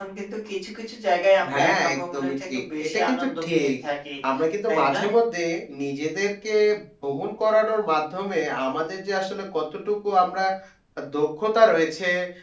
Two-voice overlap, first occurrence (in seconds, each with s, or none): 1.5 s